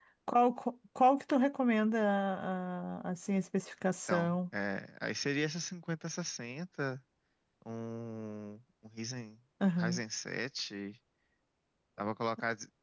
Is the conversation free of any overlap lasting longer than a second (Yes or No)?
Yes